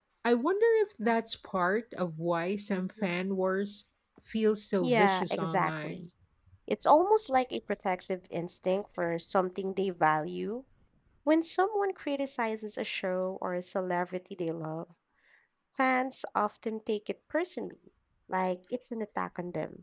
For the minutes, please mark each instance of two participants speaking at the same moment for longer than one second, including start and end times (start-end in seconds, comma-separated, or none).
4.8-6.1